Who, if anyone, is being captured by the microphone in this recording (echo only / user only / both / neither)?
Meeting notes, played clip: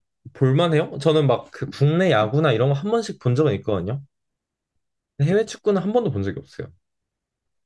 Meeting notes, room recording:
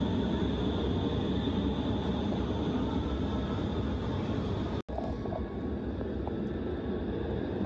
neither